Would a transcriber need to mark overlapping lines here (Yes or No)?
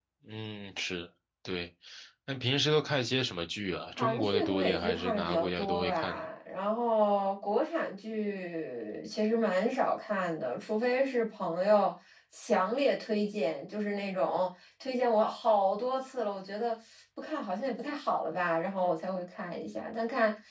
Yes